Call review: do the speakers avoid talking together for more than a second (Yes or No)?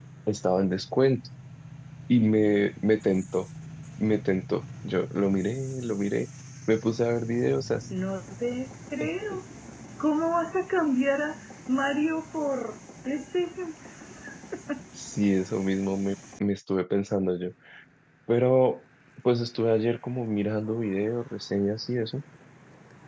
Yes